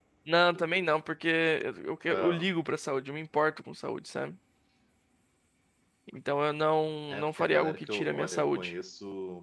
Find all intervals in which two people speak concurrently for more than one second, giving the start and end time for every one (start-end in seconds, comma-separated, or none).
7.1-8.7